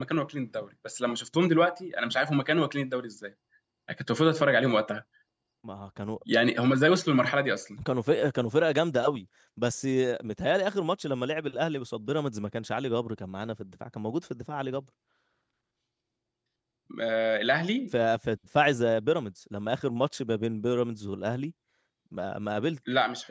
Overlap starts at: none

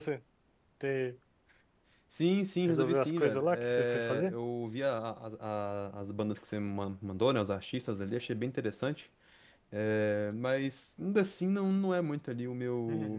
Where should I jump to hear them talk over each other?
2.7 s

